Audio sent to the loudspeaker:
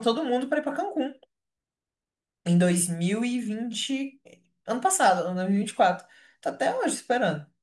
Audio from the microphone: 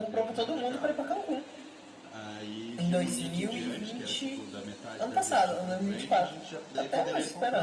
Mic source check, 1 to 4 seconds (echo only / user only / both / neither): both